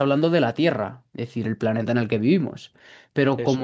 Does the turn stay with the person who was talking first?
Yes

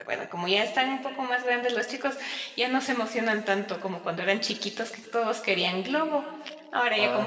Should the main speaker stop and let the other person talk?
Yes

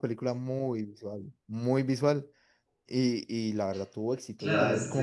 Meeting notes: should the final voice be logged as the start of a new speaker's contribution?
Yes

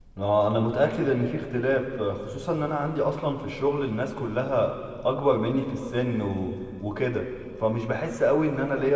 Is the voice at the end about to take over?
No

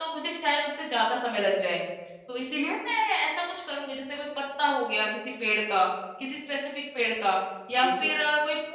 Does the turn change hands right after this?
No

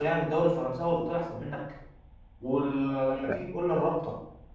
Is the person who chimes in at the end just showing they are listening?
Yes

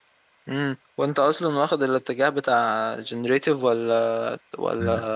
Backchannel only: No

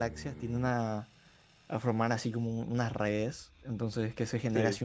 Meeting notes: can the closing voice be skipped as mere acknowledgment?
Yes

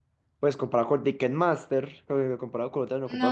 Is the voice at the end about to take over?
No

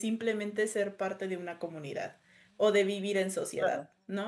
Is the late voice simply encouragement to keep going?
No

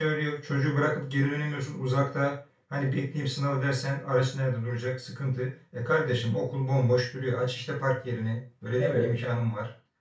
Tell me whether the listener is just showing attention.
Yes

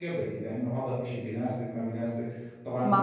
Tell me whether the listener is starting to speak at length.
No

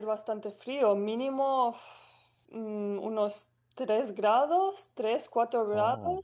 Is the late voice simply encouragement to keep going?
Yes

